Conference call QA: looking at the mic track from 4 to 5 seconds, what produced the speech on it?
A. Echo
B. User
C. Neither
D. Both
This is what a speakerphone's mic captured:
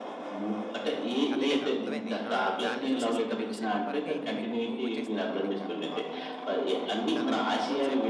D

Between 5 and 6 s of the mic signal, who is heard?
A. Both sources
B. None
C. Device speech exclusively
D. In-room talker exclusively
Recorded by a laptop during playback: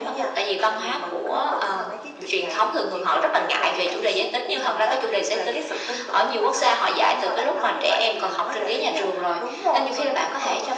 C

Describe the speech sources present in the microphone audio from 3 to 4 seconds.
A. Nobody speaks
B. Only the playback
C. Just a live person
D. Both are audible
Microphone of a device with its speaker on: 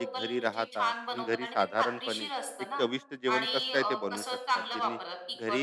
D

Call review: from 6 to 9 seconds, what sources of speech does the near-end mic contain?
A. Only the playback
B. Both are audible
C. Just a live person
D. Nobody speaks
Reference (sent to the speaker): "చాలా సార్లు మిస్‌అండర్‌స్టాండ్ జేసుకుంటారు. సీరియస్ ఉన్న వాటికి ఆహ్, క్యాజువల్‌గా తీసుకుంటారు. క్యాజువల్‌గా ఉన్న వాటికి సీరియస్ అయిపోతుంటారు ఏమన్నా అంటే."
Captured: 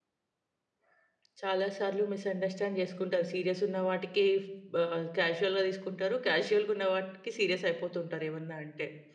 A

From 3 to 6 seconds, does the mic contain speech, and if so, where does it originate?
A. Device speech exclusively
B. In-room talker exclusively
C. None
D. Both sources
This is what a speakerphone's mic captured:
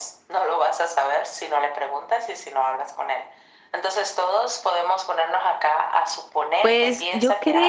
A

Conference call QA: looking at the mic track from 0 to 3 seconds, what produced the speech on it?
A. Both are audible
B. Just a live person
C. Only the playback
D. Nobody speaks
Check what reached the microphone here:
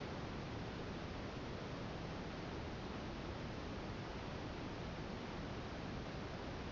D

